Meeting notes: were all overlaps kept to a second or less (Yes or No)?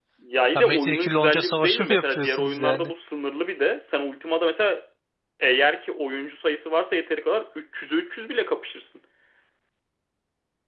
No